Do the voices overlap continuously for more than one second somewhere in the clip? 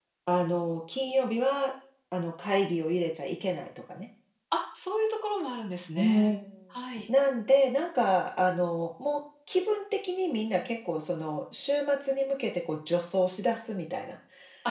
No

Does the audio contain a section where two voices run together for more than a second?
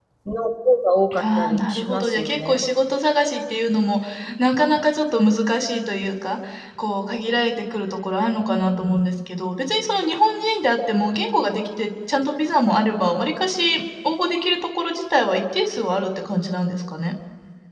Yes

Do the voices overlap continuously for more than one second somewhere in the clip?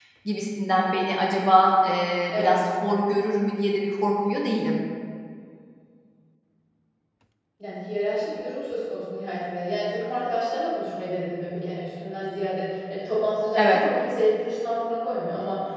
No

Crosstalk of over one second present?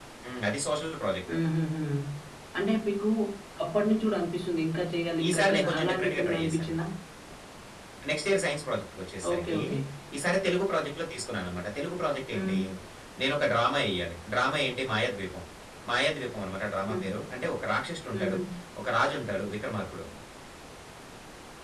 Yes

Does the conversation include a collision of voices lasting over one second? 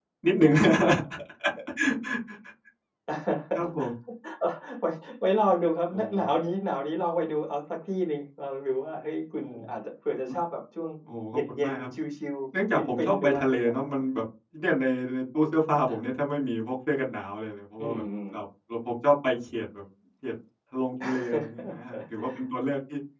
Yes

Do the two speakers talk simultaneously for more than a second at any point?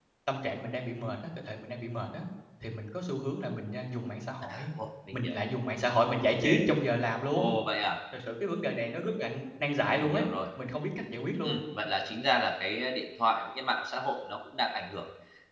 No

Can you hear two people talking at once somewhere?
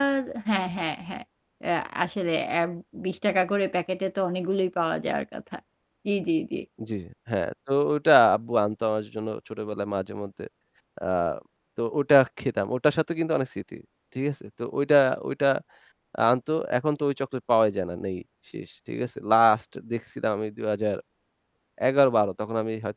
No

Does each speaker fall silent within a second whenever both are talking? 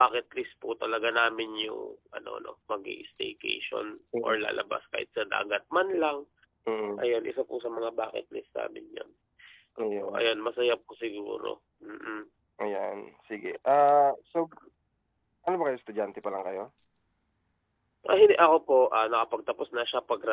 Yes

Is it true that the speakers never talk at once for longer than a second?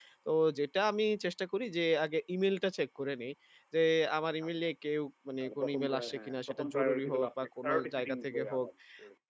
No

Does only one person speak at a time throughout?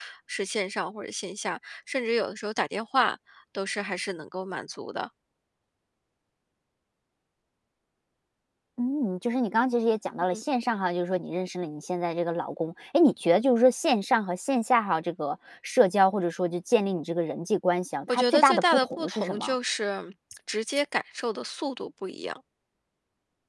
No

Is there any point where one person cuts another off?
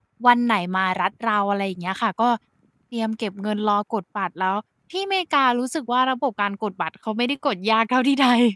No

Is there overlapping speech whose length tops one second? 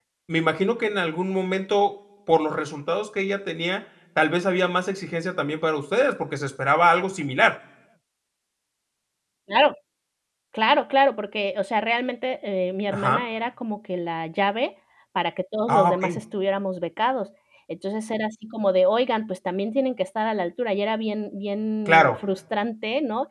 No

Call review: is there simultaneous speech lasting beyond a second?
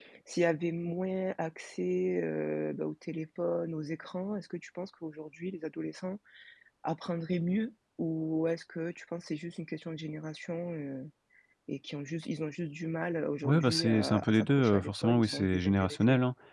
Yes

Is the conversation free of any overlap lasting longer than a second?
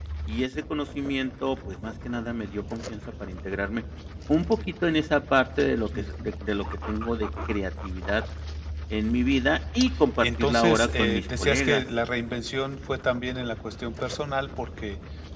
No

